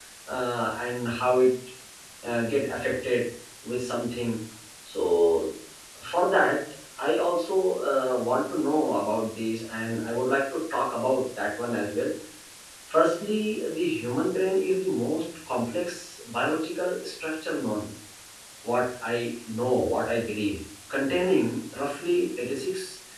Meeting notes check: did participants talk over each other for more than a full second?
No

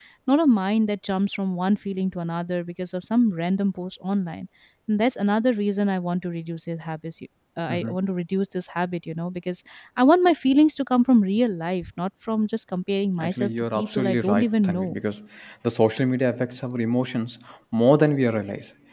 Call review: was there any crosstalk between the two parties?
Yes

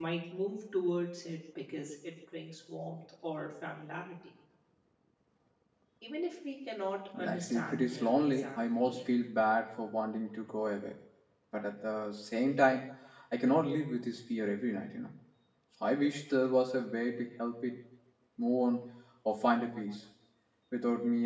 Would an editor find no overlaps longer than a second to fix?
No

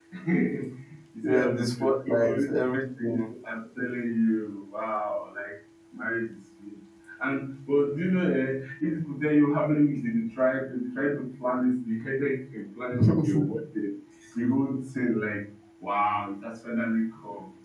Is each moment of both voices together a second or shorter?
No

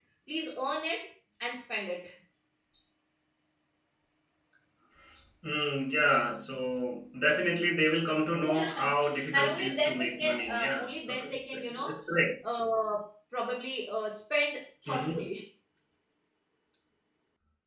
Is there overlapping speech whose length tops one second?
Yes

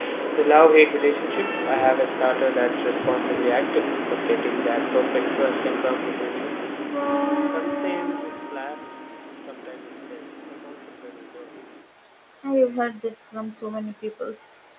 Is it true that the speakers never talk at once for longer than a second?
Yes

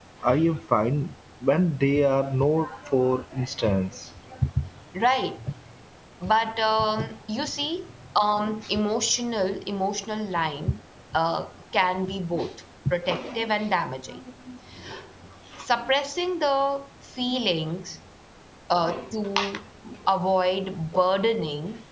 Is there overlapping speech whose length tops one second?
No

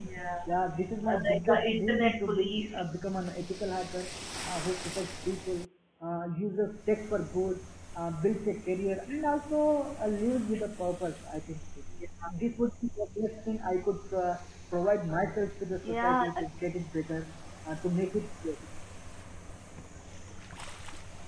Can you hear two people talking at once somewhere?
Yes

